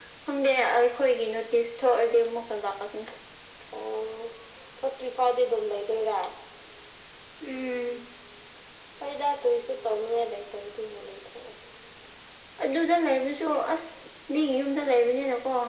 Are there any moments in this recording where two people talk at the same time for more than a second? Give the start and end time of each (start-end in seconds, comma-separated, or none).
none